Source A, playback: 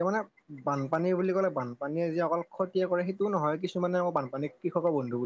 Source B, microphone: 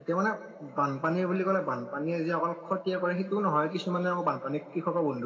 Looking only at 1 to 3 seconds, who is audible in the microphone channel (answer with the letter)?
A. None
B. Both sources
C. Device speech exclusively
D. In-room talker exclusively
C